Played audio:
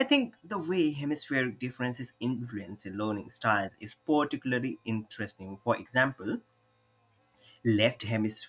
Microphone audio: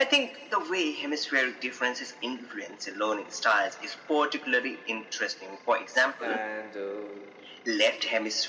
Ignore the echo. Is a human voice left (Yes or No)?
Yes